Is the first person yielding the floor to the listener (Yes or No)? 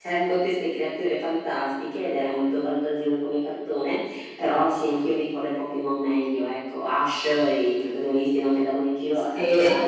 No